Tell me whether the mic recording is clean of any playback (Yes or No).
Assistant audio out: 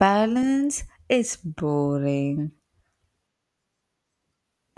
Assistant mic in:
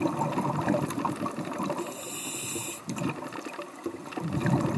Yes